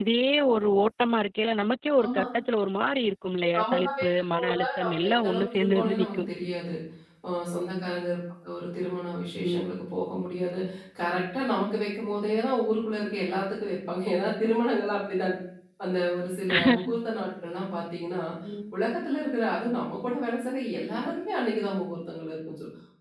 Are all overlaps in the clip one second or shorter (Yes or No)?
No